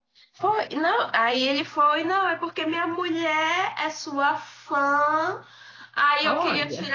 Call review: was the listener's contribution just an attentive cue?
Yes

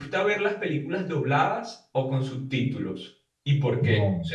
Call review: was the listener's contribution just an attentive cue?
No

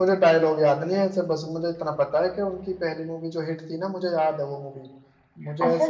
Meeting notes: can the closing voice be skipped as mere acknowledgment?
No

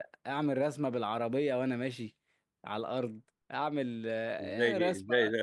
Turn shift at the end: Yes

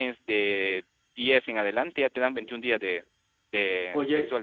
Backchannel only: No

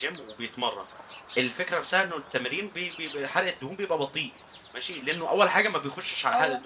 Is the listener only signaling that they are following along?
Yes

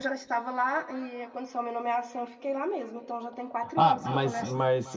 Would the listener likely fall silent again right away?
No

